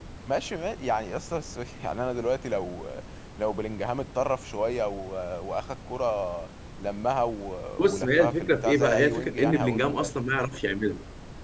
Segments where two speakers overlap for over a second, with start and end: 7.8-10.1

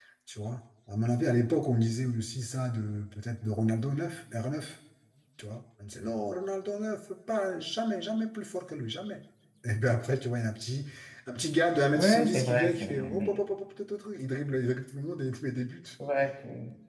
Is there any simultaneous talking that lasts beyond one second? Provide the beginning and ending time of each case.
11.9-13.4

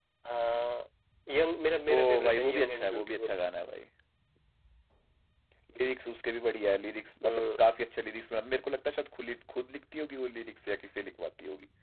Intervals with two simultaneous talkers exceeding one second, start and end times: 2.0-3.3

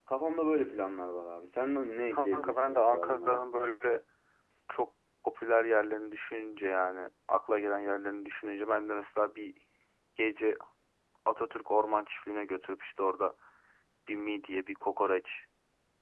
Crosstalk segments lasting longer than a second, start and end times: 2.1-3.5

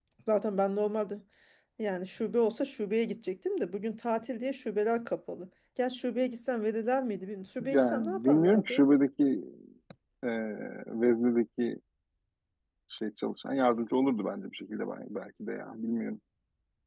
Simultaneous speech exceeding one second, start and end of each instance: 7.6-8.8

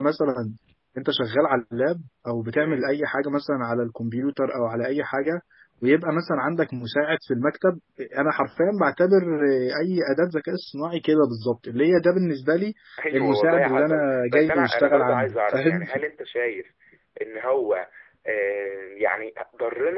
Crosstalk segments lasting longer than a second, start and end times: 13.1-15.8

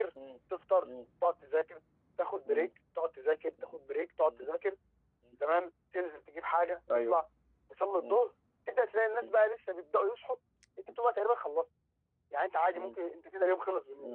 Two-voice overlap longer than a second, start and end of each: none

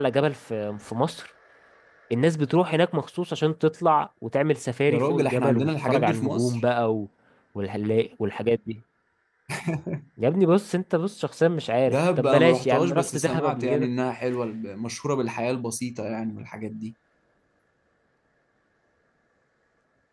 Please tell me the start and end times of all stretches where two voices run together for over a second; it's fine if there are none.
4.9-6.6, 11.8-13.9

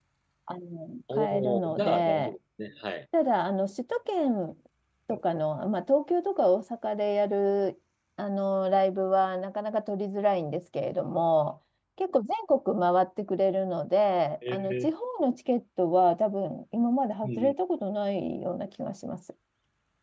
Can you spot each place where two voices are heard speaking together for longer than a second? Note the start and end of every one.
1.1-2.3

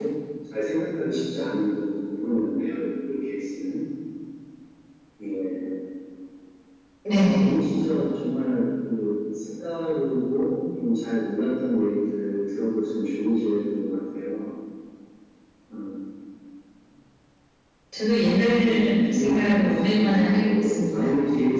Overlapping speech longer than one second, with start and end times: 18.6-21.1

